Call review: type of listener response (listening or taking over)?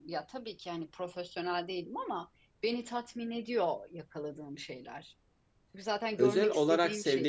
taking over